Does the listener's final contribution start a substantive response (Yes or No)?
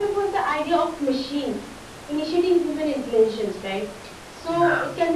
No